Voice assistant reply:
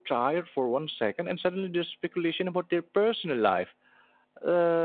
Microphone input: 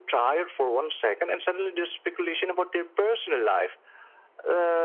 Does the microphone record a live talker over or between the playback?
No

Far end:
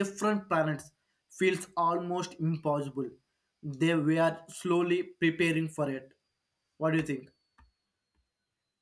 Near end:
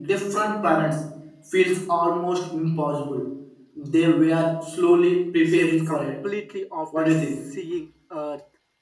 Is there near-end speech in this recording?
Yes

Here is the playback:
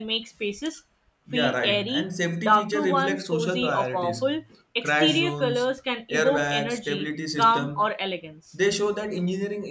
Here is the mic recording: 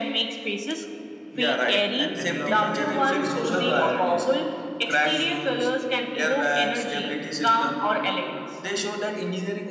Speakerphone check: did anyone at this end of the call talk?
Yes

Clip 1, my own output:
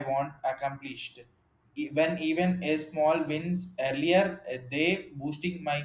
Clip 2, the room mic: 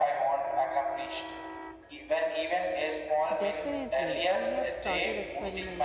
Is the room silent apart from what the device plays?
No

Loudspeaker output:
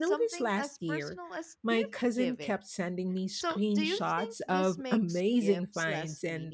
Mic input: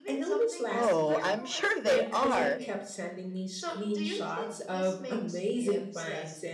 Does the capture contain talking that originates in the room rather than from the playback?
Yes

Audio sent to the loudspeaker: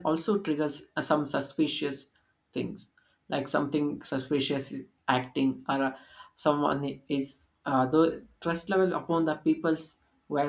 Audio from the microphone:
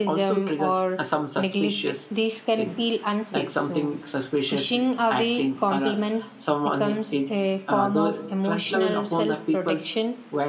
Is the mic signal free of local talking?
No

